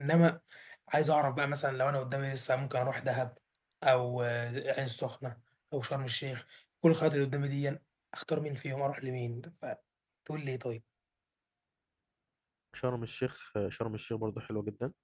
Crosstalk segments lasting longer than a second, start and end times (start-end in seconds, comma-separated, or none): none